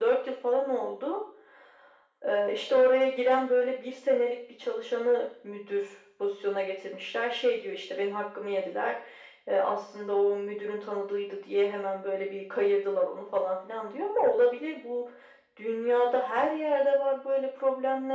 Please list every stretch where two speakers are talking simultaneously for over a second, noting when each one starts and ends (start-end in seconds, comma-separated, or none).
none